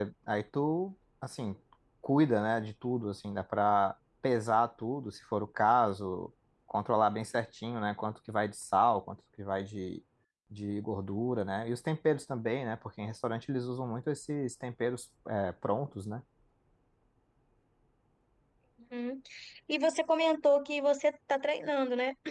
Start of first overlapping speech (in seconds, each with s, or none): none